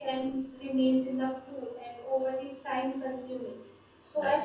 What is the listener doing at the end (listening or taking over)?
listening